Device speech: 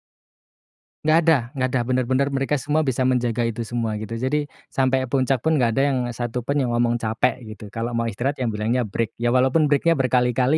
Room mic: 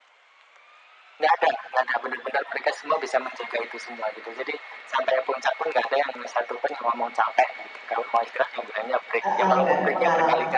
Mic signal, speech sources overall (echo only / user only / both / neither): both